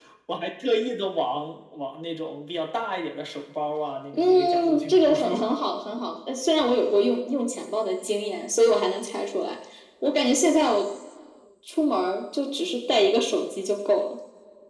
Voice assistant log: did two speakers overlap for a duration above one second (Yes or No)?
Yes